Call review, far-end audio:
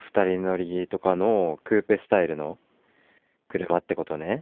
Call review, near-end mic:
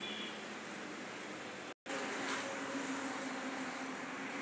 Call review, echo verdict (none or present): none